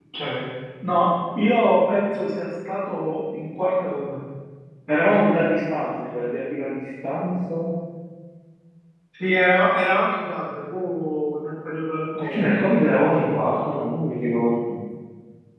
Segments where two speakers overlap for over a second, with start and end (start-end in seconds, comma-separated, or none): none